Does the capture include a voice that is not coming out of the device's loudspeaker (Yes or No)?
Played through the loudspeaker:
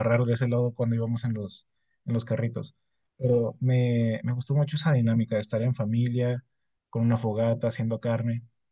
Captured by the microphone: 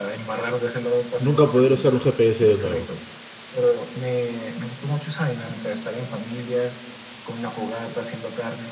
Yes